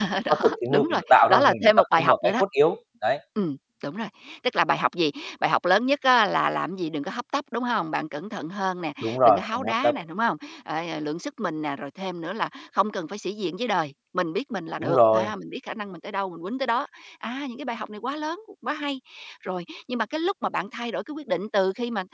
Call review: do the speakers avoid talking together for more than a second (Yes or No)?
No